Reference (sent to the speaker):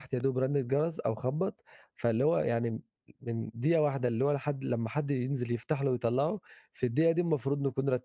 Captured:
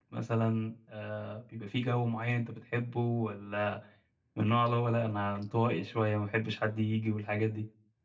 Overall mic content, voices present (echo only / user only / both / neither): user only